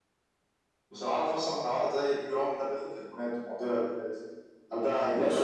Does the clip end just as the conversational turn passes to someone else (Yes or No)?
Yes